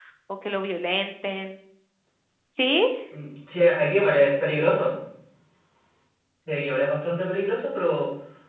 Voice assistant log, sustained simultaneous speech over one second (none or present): none